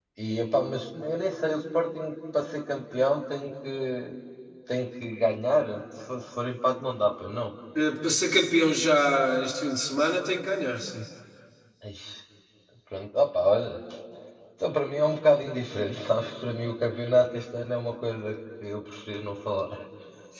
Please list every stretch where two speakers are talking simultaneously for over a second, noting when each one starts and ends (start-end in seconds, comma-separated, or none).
none